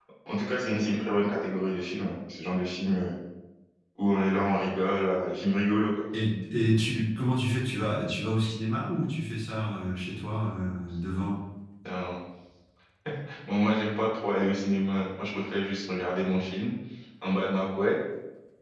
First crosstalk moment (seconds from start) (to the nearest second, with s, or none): none